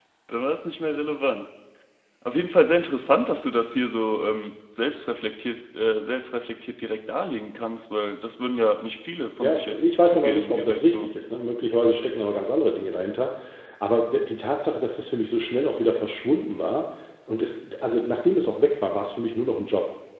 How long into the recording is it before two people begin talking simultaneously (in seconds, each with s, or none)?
9.4 s